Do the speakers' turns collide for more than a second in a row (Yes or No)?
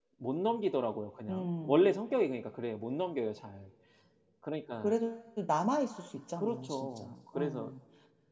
Yes